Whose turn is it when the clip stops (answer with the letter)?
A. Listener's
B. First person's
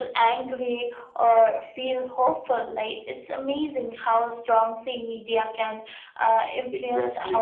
B